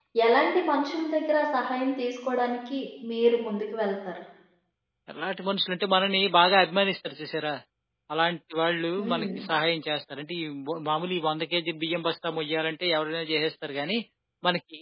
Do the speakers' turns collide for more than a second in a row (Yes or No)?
No